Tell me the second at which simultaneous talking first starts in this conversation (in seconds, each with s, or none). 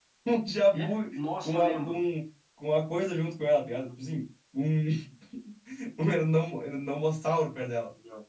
0.7 s